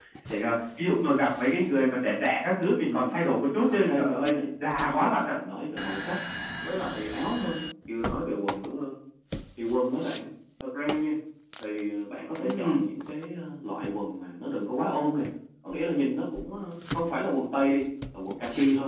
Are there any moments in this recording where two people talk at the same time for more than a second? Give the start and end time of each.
3.7-5.3

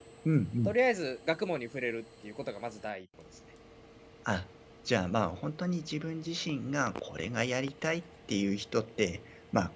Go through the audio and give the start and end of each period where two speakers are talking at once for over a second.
none

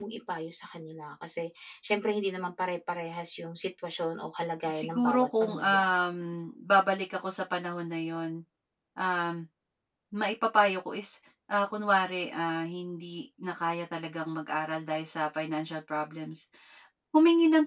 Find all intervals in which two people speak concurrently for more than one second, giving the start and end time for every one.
4.6-5.9

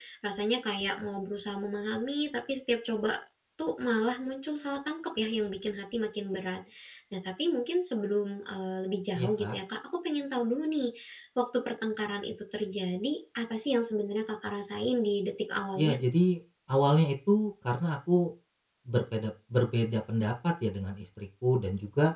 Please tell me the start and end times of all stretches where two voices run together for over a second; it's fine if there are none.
none

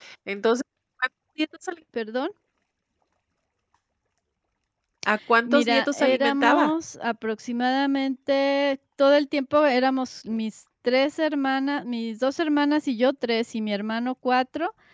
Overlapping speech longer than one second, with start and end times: 5.5-6.7

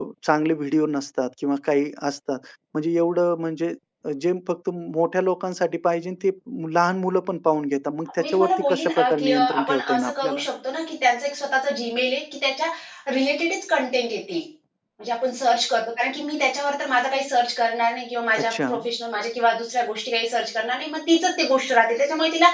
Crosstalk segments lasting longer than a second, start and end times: 8.2-10.4

